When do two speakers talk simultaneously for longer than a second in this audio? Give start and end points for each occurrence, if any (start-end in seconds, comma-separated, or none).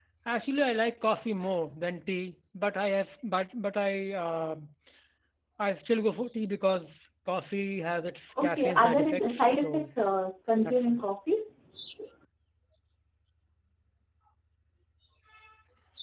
8.4-9.9